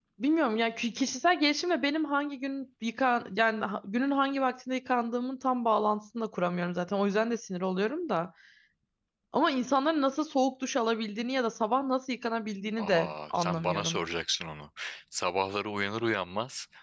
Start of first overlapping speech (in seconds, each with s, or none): 12.8 s